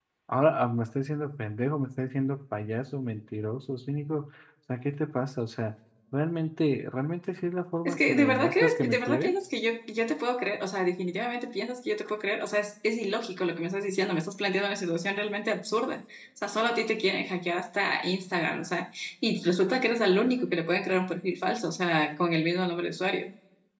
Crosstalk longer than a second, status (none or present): present